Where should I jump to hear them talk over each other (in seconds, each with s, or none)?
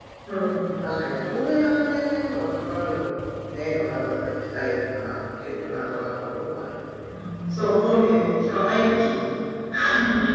none